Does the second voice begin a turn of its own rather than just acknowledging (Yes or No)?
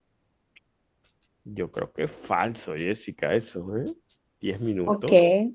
Yes